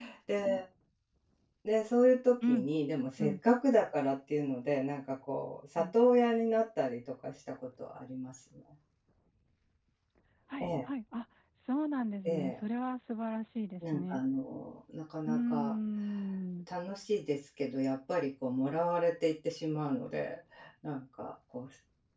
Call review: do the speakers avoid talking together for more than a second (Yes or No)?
Yes